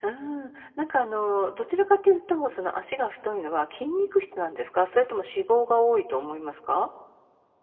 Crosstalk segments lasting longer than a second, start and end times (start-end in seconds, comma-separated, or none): none